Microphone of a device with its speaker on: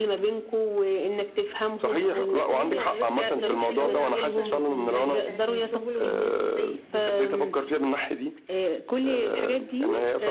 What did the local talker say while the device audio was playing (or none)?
بُص خلّيني بس أكلّمك في الأول عن النقطة ال ال بتاعة الشغل والناس وإزاي يقد